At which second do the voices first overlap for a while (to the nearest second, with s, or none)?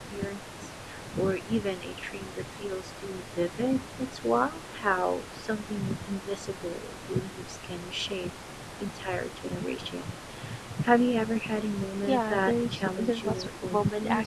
12 s